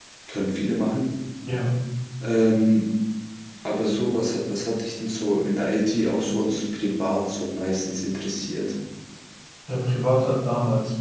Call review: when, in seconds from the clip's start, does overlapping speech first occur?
none

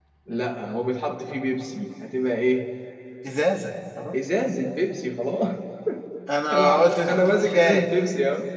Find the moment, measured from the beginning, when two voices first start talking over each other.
6.5 s

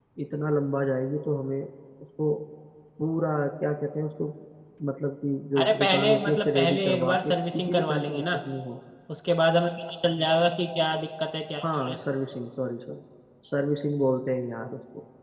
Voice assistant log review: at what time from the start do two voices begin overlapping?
5.6 s

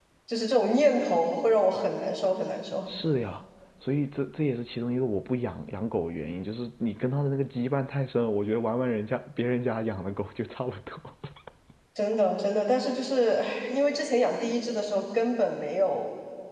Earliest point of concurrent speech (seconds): none

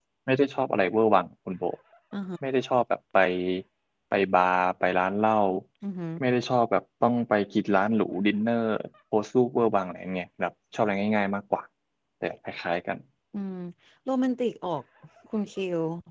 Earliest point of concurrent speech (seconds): none

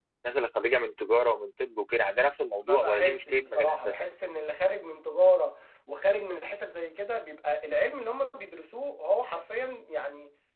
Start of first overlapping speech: 2.6 s

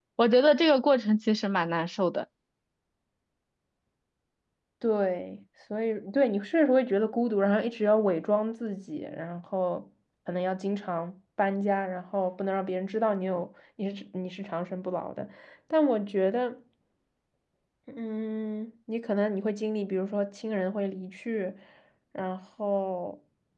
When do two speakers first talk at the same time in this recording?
none

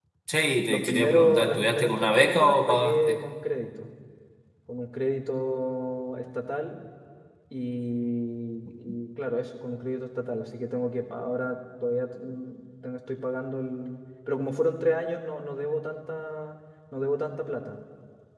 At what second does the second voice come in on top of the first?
0.7 s

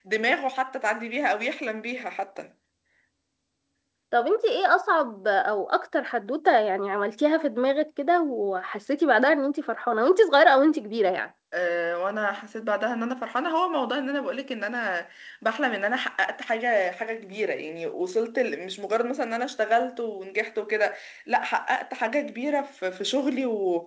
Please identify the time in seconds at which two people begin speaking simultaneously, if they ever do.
none

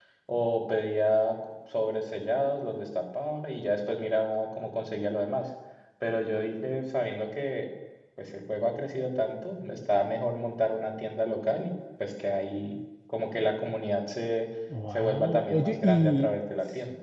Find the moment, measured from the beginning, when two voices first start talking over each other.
14.9 s

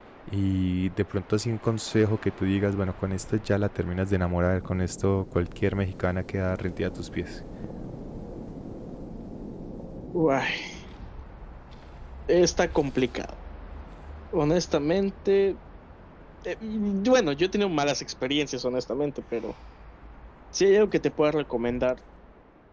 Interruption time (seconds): none

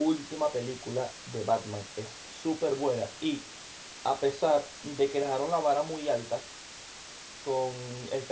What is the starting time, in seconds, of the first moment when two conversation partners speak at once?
none

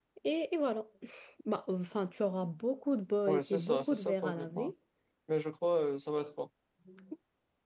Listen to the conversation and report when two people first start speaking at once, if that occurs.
3.3 s

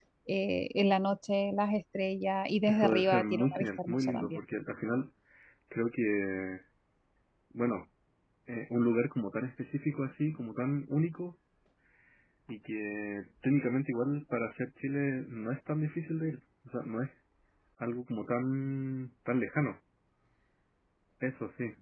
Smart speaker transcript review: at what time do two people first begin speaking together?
2.7 s

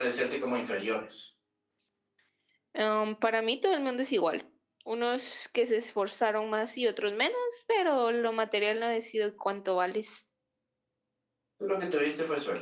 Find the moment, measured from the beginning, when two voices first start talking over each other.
none

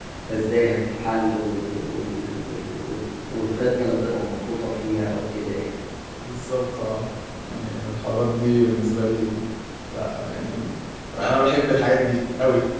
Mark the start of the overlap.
none

